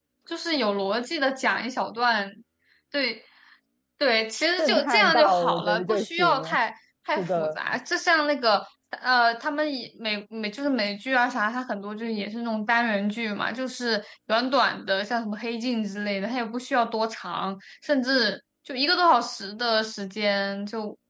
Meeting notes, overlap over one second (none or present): present